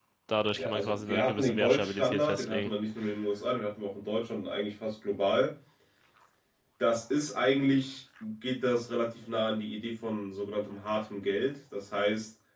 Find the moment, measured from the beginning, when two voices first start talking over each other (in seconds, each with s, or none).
0.6 s